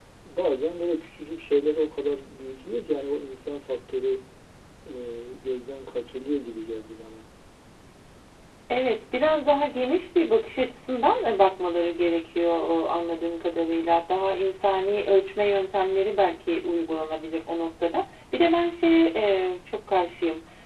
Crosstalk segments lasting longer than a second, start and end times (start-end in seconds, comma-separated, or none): none